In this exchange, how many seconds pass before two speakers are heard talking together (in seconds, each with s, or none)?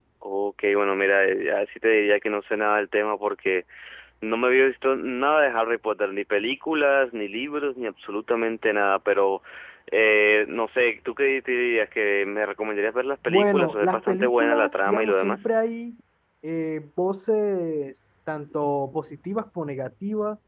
13.2 s